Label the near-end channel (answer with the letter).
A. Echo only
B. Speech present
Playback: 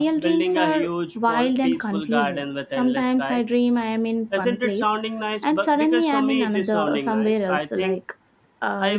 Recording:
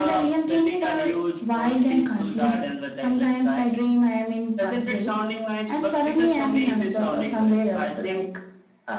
A